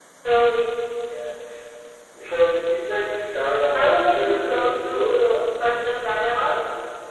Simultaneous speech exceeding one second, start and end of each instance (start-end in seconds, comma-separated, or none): 3.7-5.2